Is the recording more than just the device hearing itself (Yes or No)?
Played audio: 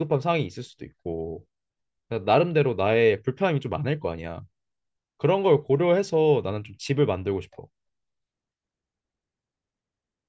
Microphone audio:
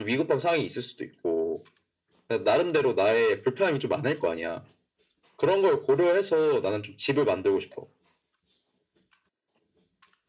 No